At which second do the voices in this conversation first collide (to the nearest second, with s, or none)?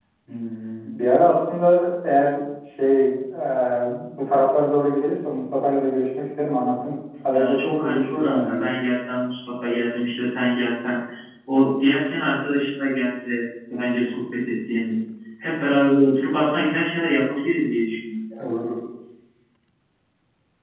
7 s